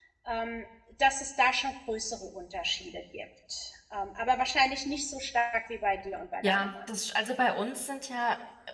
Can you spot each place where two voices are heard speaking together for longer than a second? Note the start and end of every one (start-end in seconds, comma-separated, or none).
none